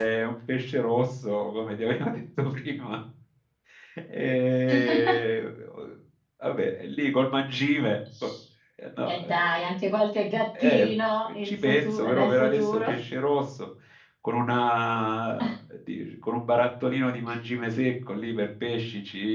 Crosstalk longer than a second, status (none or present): present